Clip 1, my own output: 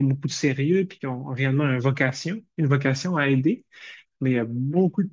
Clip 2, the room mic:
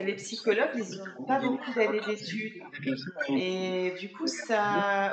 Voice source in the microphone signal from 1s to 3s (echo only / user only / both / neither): both